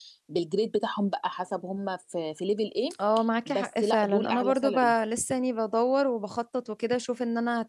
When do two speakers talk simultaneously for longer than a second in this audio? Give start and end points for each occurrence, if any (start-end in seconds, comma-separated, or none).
3.5-4.9